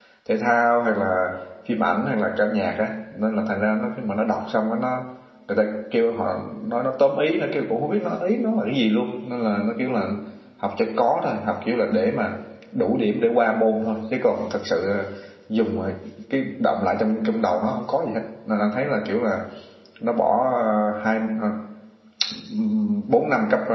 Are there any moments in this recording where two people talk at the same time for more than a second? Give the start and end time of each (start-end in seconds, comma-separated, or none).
none